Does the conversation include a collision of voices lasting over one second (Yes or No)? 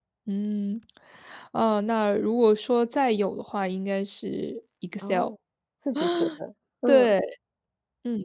No